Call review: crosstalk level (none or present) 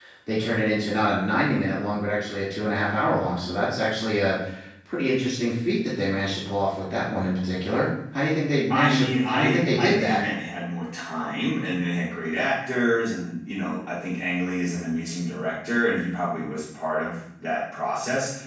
present